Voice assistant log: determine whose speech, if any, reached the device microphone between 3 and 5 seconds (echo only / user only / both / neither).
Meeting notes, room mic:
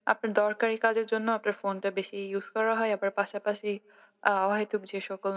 echo only